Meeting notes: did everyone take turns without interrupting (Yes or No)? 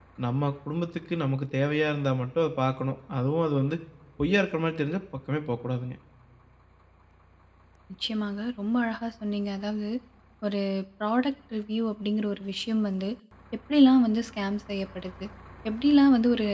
Yes